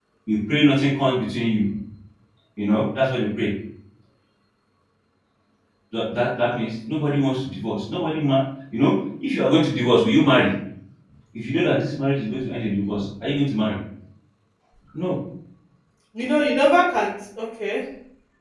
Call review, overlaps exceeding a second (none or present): none